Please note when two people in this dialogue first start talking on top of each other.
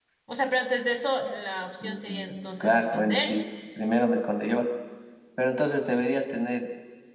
1.8 s

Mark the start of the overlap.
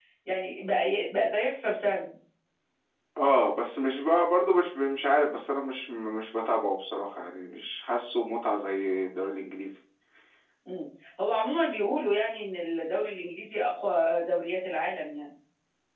none

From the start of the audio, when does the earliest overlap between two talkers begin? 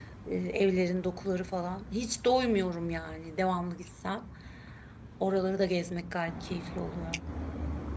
none

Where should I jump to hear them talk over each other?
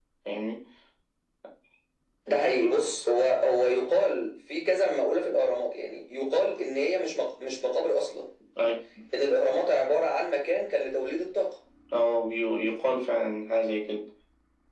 none

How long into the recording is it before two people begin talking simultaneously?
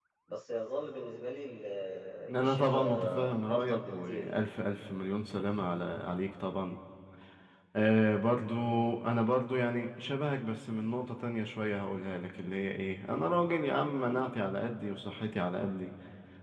2.4 s

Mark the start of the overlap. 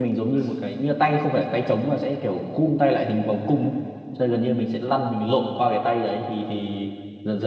none

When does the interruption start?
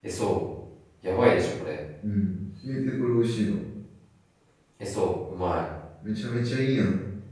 none

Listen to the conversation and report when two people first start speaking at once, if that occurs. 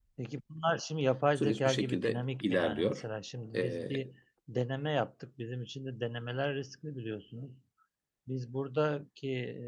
1.4 s

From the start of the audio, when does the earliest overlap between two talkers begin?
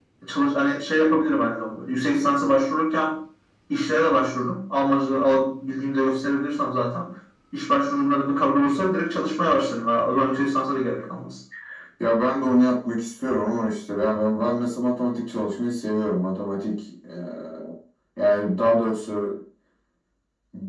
none

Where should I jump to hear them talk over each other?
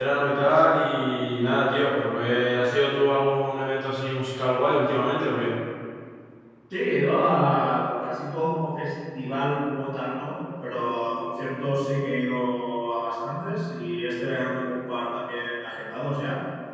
none

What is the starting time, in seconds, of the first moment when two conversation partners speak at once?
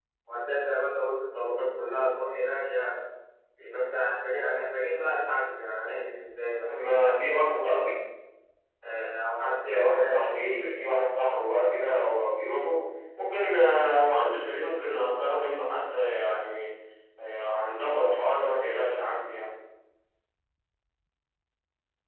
6.7 s

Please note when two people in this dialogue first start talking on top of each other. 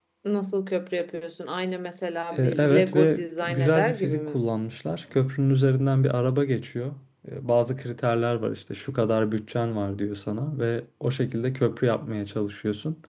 2.3 s

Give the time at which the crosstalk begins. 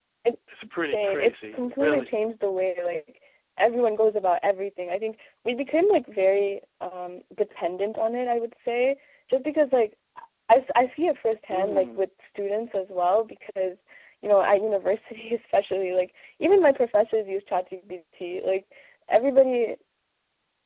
0.8 s

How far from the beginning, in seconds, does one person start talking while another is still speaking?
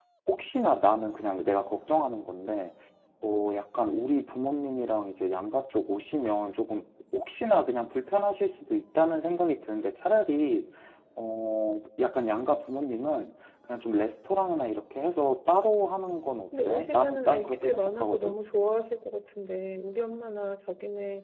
16.5 s

